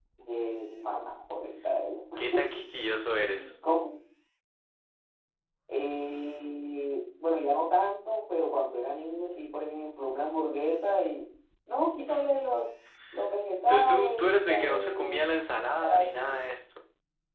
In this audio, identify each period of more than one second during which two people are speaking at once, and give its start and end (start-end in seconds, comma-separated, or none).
13.7-15.2